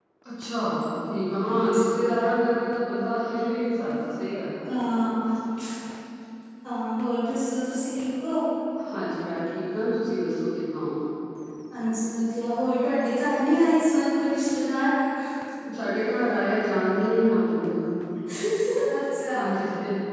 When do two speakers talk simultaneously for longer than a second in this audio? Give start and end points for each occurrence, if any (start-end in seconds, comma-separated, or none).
none